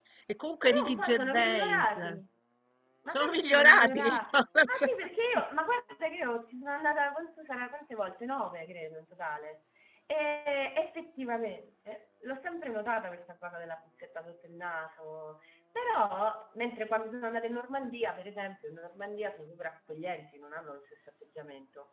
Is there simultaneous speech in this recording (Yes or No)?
Yes